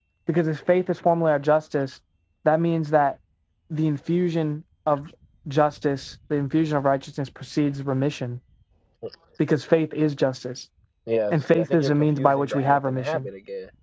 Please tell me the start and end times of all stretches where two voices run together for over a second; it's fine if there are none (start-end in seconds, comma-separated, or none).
11.3-13.2